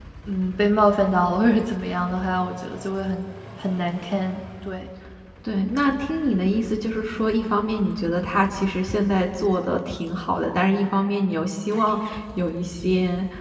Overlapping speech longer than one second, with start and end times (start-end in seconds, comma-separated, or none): none